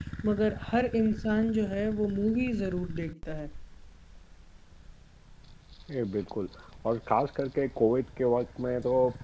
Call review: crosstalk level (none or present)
none